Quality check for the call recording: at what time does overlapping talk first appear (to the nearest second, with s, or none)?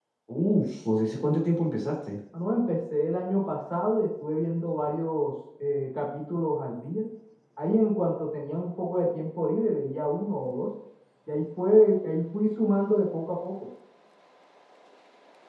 none